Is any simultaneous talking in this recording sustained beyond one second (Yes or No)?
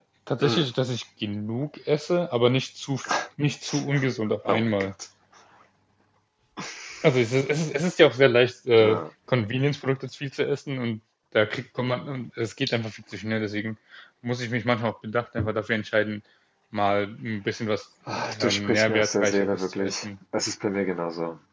Yes